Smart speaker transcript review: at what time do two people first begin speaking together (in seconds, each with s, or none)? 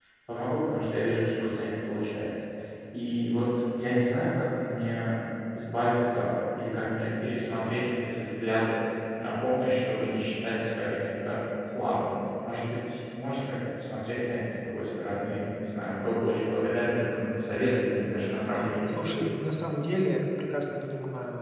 none